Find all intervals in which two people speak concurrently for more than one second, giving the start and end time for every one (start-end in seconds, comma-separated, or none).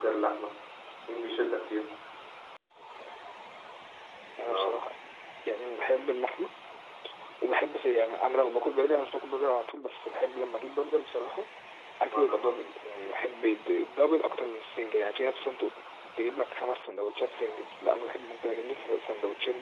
none